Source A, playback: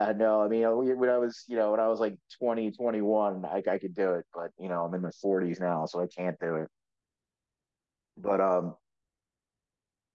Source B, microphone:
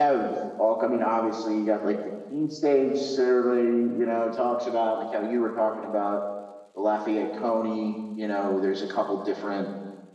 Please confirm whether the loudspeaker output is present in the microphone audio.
No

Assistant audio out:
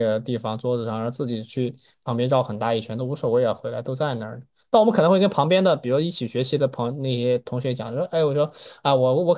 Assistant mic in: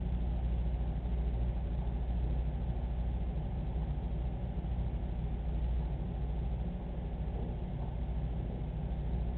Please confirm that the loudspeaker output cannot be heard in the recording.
Yes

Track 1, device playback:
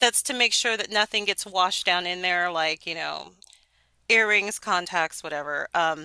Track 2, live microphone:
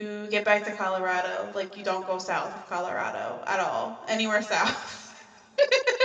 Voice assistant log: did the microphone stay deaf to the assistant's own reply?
Yes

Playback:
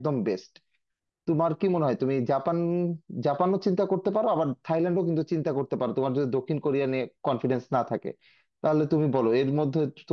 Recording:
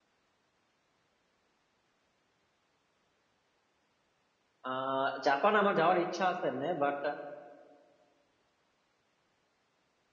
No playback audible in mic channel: Yes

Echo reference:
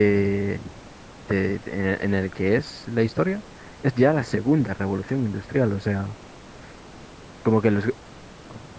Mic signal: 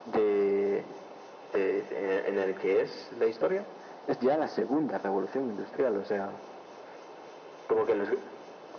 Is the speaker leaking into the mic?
Yes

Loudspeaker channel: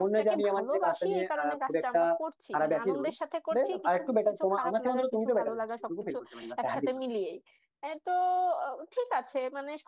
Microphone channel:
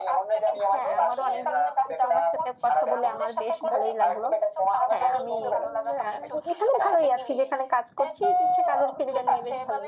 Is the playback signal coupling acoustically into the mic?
Yes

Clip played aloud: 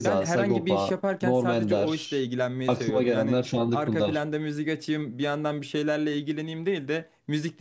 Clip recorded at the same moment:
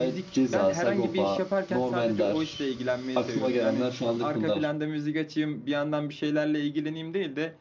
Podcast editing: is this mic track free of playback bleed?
No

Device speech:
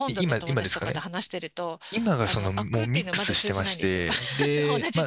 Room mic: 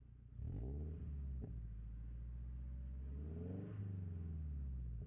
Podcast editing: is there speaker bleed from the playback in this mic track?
No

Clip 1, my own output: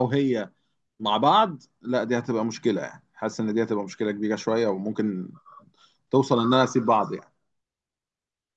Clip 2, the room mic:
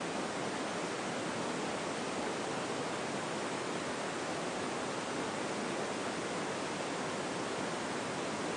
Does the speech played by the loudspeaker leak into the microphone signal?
No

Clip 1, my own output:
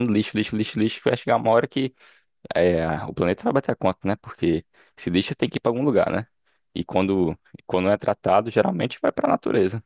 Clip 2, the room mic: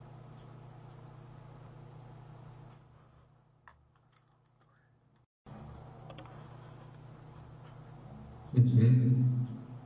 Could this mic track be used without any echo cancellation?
Yes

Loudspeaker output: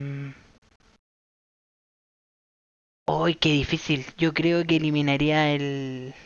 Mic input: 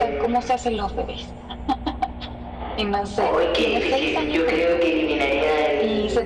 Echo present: Yes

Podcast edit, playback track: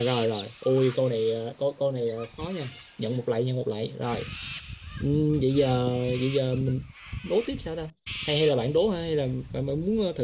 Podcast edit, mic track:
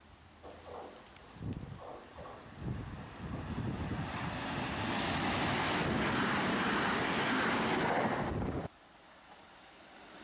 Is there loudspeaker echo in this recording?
No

